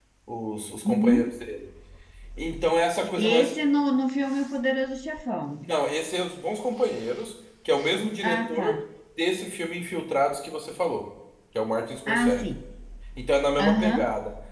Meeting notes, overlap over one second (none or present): none